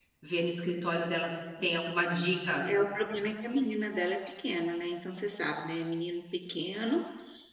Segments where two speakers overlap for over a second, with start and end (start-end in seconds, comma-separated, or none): none